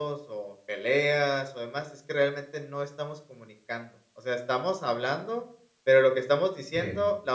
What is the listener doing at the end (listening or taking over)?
listening